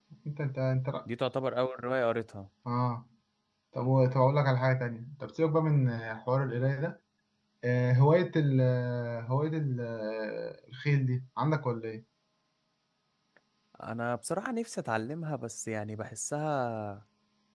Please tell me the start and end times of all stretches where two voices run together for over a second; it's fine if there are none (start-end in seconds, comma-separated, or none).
none